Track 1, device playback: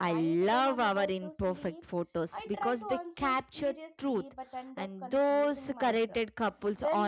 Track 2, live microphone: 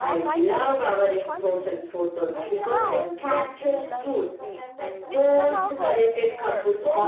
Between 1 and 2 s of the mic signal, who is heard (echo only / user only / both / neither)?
both